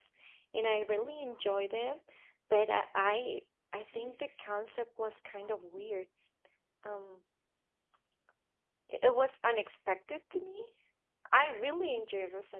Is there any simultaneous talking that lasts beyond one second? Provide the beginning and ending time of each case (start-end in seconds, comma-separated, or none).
none